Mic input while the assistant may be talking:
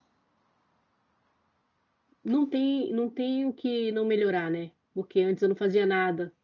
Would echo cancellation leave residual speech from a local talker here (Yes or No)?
Yes